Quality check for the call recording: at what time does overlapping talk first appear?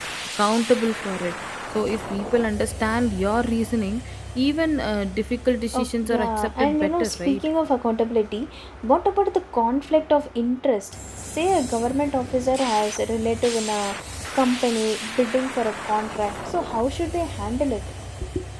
5.7 s

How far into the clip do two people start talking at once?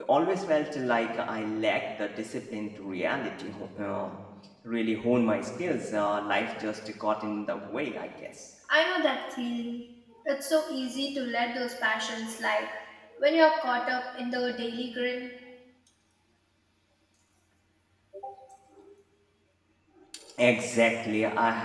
none

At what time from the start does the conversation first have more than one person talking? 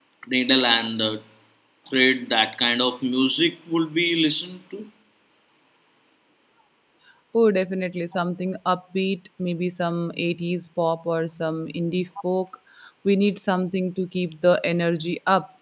none

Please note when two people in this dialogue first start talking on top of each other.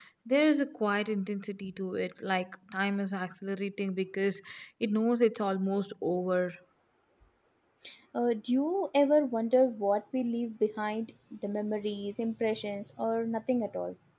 none

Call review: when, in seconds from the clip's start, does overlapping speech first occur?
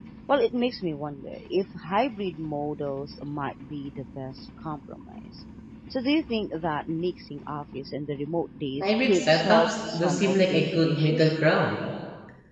8.8 s

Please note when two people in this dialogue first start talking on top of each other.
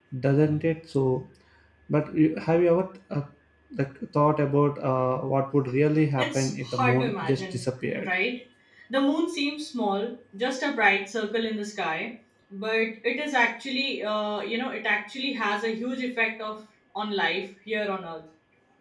6.2 s

